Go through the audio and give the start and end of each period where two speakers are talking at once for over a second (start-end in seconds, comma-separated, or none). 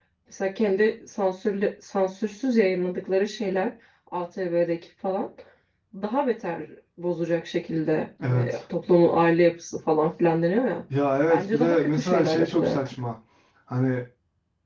11.3-12.9